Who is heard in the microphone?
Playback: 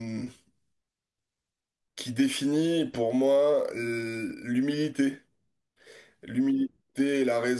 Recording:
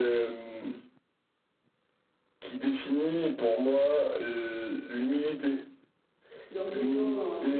both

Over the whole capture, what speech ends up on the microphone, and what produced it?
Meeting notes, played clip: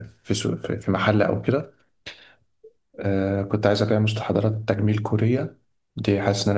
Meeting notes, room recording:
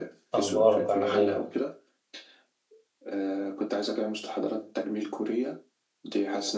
both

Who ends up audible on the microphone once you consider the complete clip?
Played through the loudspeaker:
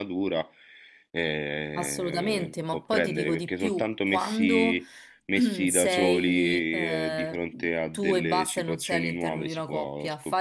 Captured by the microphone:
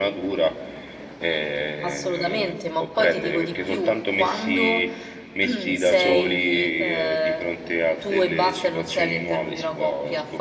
echo only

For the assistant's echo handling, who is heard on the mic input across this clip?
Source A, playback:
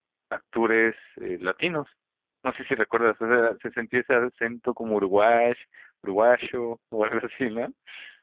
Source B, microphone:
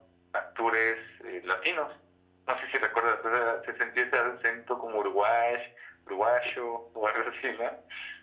echo only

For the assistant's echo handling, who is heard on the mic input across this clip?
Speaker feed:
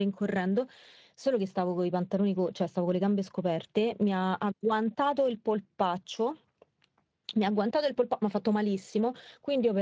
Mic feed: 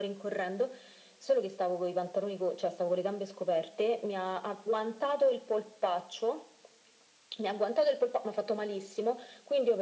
echo only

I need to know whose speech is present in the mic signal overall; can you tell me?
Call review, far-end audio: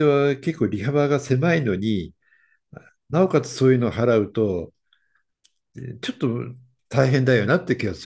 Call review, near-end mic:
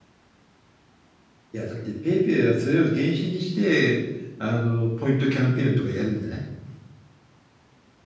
user only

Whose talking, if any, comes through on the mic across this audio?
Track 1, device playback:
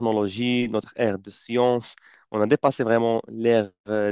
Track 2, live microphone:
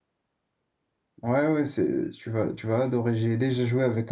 user only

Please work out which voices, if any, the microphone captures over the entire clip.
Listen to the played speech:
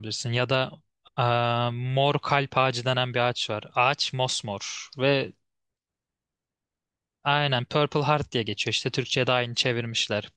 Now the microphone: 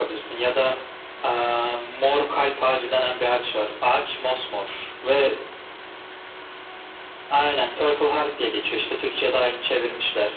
echo only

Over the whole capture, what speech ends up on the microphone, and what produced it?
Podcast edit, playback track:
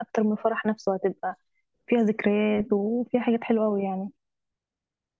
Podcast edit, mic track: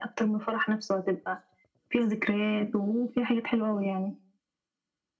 echo only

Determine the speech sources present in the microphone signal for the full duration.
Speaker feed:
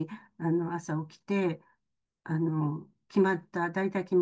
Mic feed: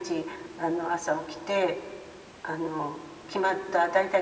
echo only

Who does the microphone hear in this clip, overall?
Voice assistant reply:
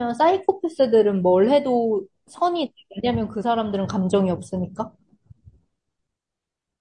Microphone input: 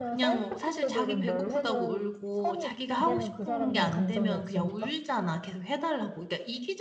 both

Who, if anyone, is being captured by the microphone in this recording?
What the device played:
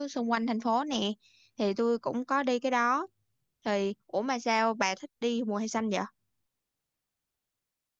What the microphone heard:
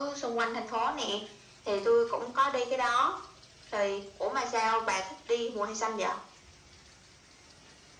echo only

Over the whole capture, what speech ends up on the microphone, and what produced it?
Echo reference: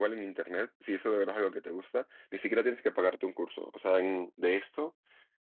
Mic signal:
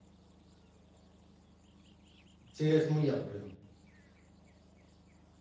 user only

